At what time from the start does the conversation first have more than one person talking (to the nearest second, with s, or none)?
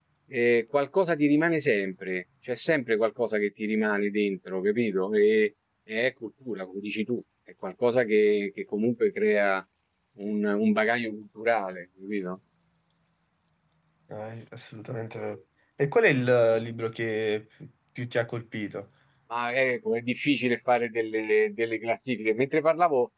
none